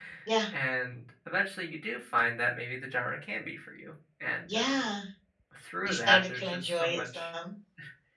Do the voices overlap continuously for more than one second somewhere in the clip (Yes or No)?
Yes